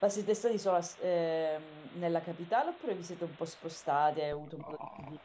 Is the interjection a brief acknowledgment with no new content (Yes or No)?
No